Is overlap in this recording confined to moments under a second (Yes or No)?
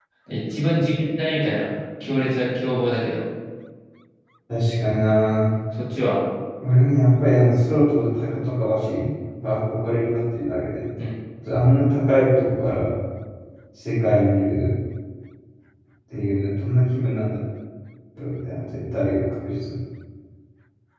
Yes